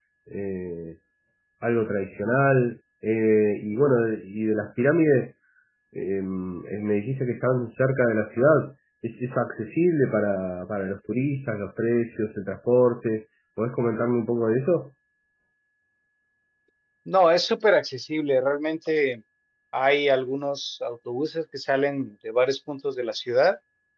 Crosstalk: none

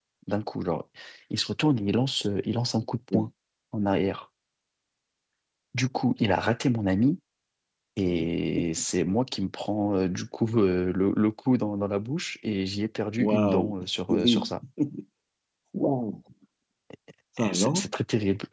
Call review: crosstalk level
present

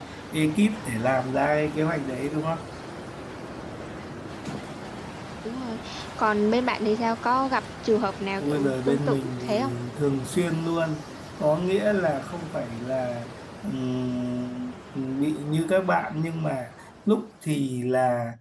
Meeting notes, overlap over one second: present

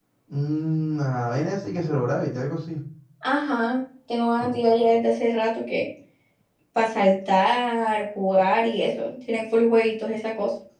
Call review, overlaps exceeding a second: none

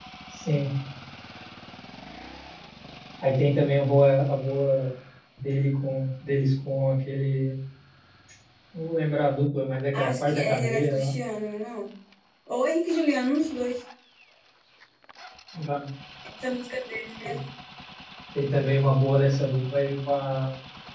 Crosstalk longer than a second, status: present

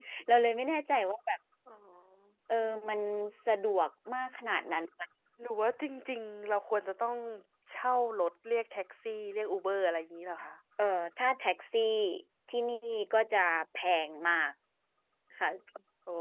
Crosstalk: none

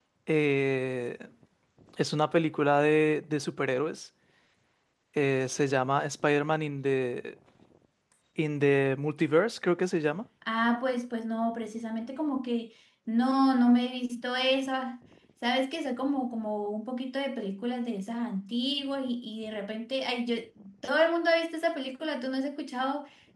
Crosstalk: none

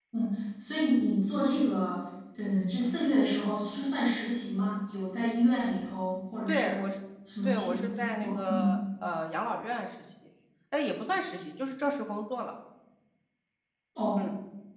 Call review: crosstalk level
present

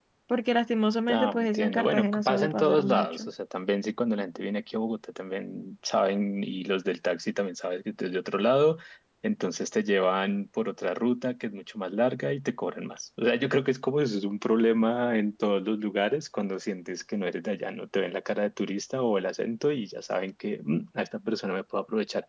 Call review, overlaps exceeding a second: present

